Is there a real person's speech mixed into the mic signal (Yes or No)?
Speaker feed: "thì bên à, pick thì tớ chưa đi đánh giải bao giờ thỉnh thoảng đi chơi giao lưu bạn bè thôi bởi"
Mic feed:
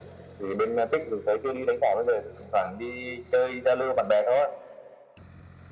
No